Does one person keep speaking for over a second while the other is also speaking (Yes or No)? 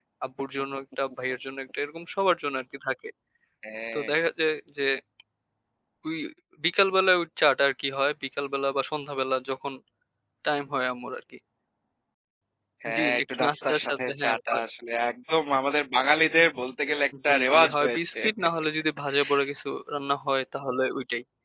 Yes